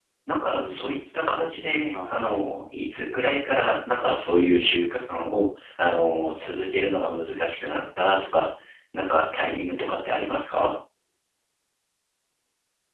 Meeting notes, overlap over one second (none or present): present